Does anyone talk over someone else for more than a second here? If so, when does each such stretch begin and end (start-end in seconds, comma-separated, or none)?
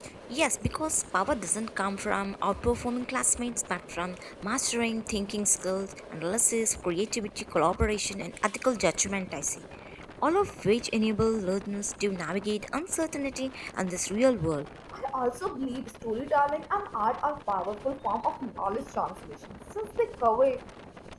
none